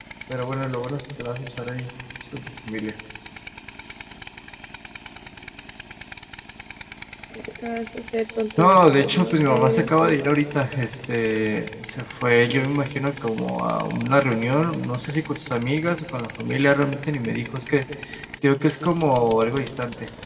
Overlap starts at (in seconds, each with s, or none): 8.6 s